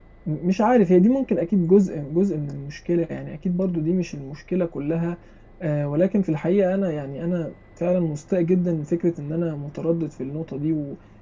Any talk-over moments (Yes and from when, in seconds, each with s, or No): No